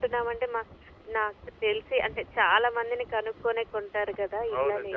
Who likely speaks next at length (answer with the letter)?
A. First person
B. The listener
B